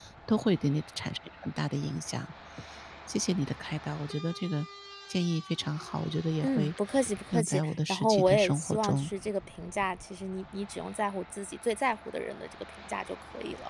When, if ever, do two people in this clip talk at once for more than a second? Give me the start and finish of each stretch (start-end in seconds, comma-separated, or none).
7.3-9.1